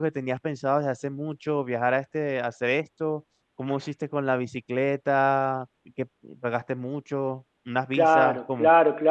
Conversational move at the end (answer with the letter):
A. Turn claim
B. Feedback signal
A